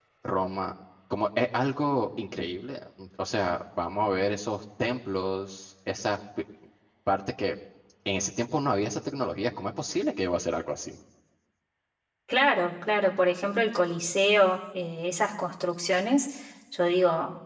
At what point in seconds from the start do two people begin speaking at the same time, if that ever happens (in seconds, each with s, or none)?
none